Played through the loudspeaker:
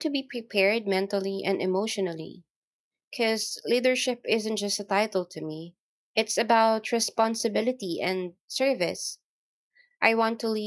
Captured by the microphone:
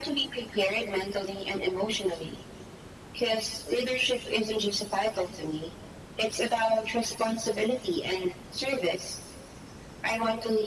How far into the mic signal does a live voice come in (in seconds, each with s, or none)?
none